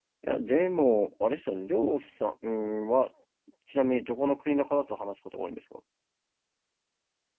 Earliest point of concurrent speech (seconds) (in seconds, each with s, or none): none